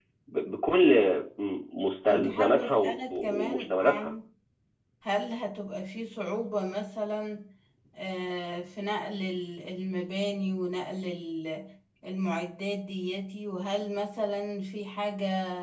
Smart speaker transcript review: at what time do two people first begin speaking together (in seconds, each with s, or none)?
2.0 s